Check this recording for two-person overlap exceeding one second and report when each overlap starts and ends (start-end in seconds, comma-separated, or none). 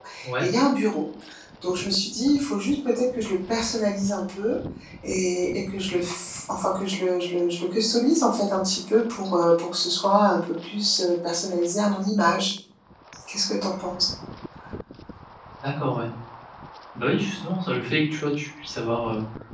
none